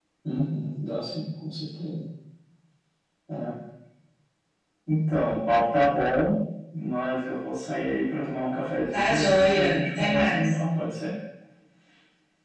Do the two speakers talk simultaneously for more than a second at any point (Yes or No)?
Yes